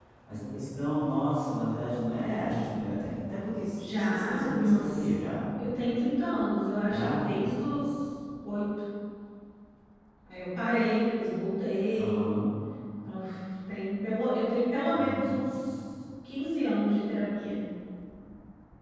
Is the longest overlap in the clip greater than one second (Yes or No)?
Yes